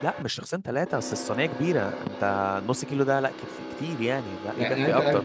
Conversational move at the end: taking over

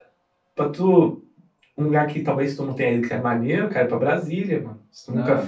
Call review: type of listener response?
taking over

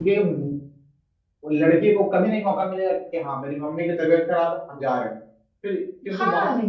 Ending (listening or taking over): listening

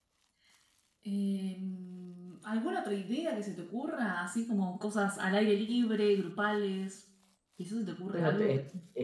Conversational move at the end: taking over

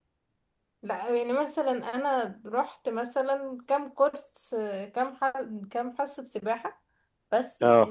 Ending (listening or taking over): listening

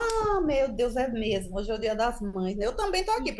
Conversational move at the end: listening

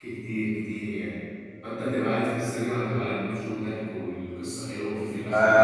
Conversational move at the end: taking over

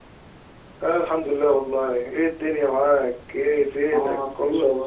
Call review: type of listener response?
taking over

